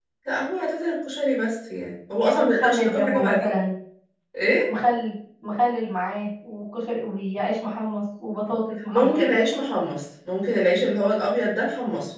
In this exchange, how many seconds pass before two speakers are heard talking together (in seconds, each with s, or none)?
2.2 s